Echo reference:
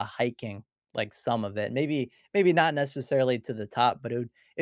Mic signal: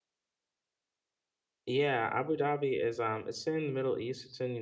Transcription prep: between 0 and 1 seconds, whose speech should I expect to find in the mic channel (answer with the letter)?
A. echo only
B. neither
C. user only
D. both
B